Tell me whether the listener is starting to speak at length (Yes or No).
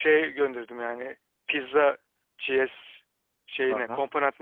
Yes